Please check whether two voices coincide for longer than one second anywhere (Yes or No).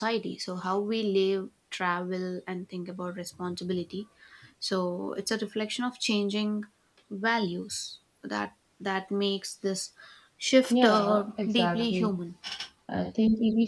Yes